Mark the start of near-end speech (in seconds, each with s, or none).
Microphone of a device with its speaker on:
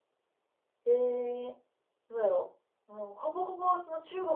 0.8 s